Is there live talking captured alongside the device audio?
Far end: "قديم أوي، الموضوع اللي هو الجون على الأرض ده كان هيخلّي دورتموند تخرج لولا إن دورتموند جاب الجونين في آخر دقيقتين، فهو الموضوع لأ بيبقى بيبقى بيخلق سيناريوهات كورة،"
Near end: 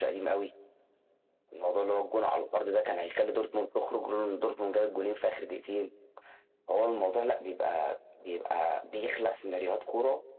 No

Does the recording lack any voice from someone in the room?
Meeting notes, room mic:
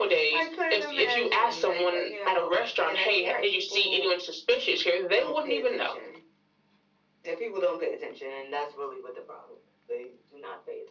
Yes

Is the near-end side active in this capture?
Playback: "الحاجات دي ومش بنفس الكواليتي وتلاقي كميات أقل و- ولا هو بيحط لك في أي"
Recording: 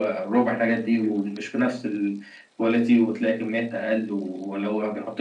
No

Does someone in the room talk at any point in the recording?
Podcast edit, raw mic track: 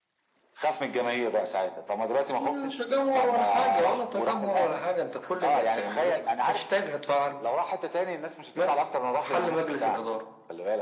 No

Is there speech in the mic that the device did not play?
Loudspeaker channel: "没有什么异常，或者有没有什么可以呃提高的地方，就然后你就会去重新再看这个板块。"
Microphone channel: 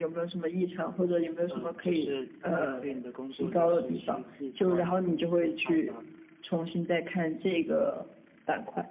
Yes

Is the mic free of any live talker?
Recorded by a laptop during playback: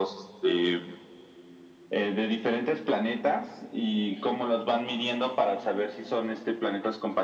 Yes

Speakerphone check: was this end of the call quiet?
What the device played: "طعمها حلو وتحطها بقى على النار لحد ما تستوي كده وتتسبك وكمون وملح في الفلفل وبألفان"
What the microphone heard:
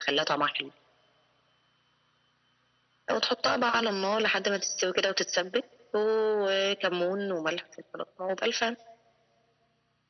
Yes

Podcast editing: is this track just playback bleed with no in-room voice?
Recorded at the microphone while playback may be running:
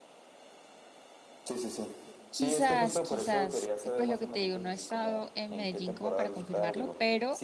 No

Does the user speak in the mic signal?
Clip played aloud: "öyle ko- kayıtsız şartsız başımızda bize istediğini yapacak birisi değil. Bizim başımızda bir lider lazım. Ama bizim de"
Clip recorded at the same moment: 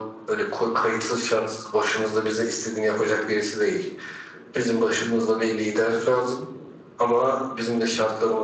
No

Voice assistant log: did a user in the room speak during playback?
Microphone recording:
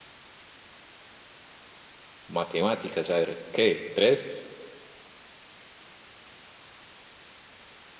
Yes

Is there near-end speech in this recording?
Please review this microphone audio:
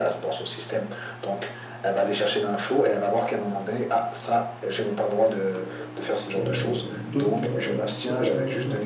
Yes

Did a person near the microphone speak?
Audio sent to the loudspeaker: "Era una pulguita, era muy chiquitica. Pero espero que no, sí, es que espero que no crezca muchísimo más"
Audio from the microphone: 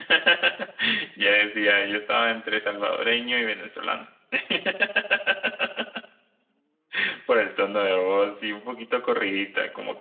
Yes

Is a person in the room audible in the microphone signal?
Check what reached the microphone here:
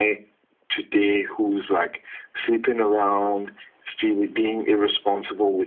No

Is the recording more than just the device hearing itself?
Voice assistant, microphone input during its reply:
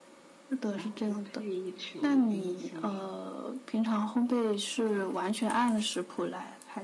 Yes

